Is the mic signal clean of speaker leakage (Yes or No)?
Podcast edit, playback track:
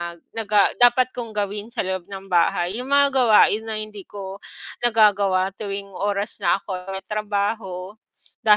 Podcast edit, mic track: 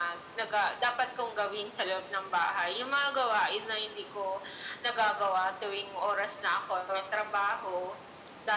No